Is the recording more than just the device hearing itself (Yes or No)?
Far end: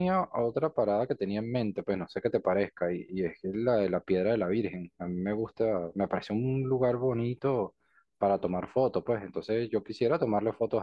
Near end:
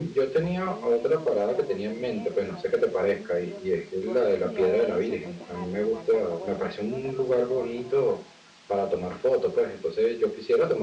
Yes